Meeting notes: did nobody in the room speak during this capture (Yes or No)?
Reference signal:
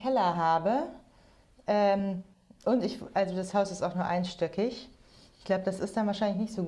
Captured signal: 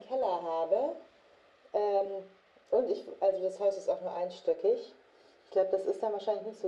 Yes